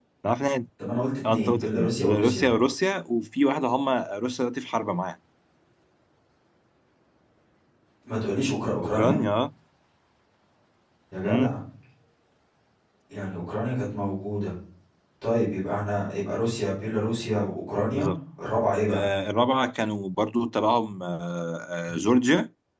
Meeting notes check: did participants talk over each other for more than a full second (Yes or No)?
Yes